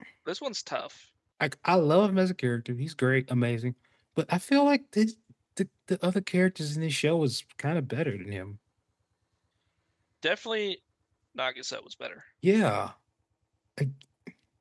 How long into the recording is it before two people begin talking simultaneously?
none

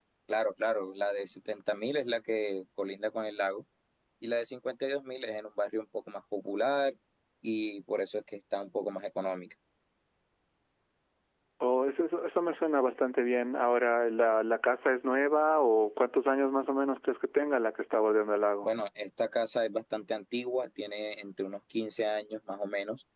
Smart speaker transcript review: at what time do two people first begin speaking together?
none

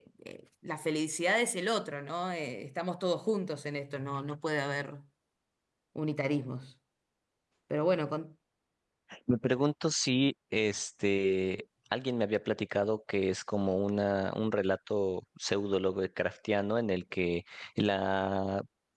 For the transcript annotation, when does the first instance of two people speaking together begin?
none

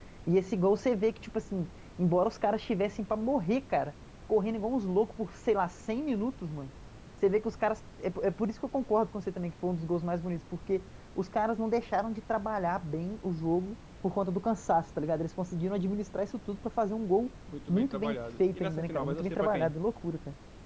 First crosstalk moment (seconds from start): 17 s

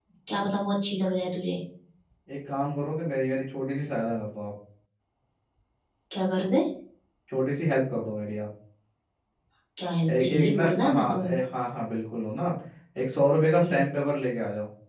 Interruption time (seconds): 10 s

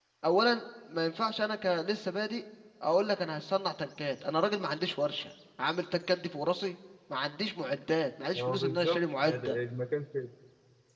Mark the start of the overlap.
8 s

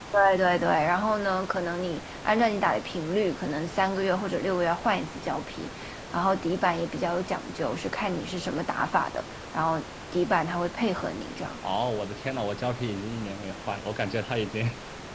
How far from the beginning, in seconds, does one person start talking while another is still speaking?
none

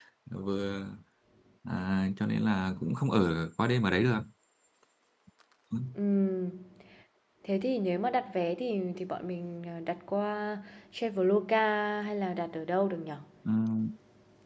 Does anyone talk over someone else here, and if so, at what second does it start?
none

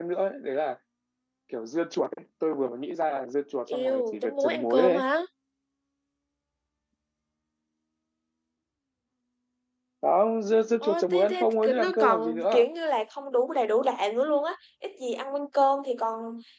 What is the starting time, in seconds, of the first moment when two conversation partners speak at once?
4 s

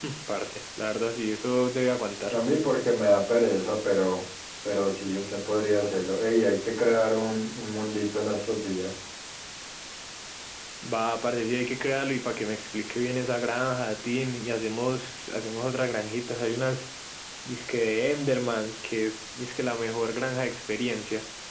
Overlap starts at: none

